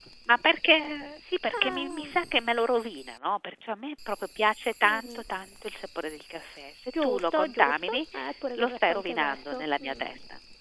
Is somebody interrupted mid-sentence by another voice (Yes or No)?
Yes